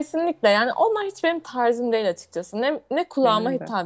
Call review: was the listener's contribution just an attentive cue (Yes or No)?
Yes